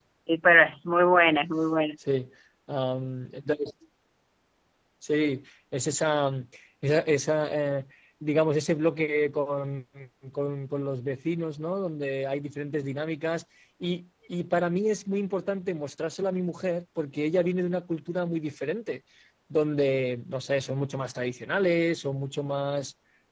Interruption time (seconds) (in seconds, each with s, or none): none